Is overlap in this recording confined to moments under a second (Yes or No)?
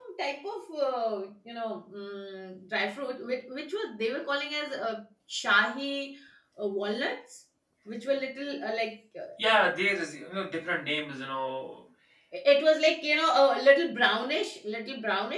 Yes